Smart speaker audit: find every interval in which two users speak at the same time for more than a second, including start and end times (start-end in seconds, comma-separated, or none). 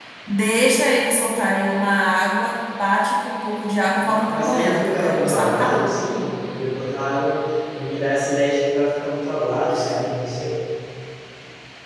4.1-5.8